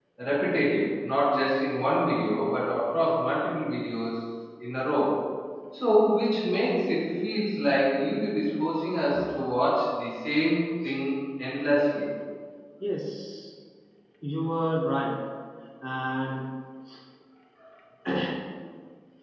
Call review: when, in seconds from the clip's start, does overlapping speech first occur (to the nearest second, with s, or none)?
none